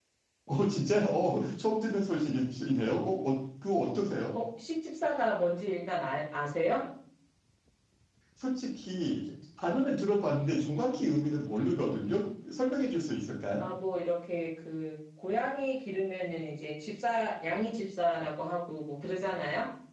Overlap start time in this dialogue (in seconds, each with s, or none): none